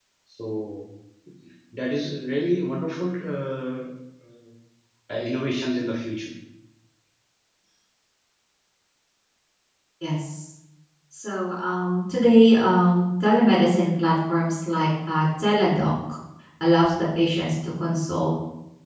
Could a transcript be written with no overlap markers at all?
Yes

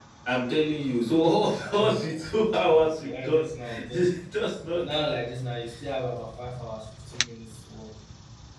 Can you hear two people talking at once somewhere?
Yes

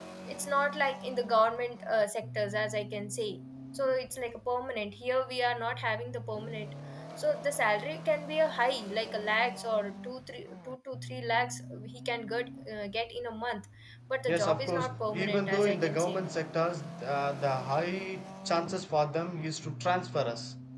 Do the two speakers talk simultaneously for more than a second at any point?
Yes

